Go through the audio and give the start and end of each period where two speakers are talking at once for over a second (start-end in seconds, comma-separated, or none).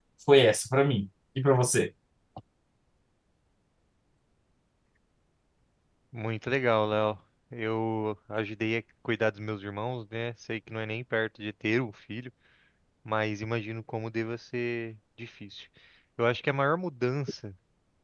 none